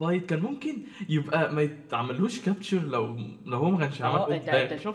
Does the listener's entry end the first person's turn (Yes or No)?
Yes